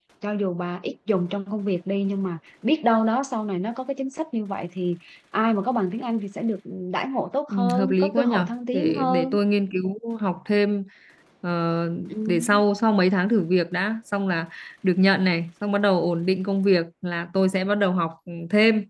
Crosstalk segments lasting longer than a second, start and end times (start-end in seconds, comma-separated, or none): 7.5-9.4